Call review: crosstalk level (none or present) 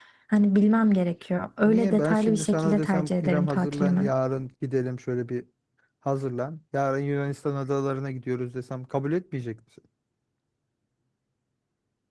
present